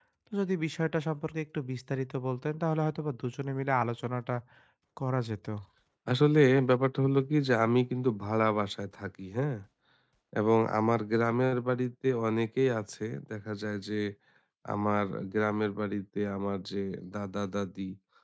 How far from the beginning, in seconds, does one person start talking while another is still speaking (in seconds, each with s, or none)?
none